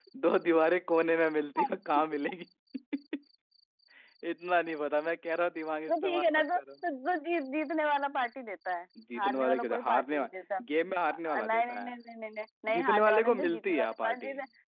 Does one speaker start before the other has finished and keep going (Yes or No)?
Yes